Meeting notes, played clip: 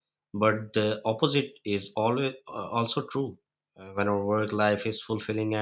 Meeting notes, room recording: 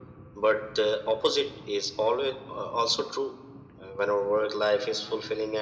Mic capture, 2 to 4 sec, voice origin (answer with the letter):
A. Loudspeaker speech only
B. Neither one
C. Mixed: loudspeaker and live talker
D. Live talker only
A